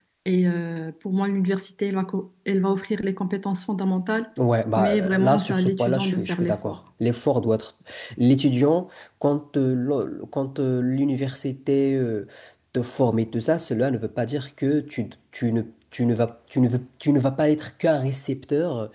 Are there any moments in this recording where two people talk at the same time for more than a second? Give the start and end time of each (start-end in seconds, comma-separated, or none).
4.8-6.8